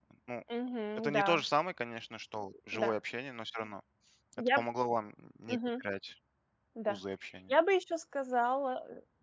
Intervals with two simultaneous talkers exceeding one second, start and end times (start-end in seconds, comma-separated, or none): none